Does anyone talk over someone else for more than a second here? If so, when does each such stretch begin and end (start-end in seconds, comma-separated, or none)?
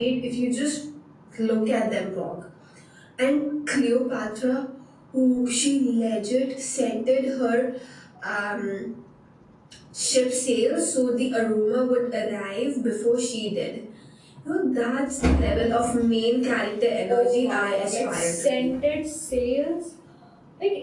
17.1-18.7